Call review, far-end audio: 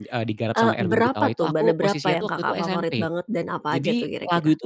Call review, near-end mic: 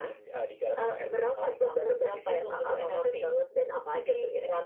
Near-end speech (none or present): none